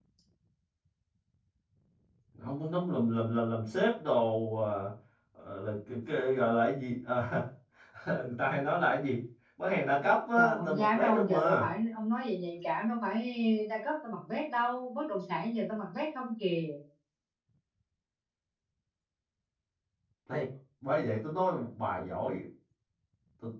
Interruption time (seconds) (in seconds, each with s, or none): 10.3 s